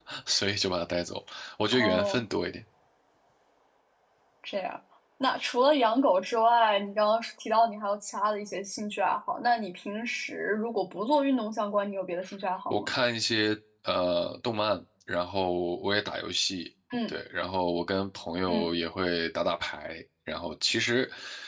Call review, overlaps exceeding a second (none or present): none